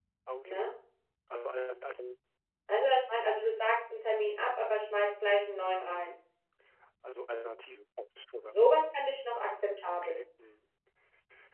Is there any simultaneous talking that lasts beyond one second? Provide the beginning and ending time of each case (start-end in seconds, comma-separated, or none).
none